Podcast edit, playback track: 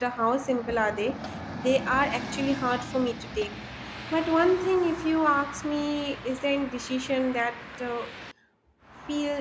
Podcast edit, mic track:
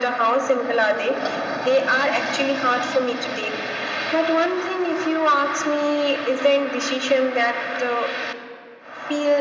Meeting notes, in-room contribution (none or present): none